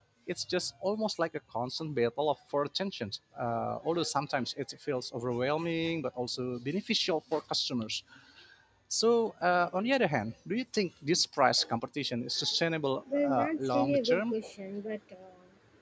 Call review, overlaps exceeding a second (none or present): present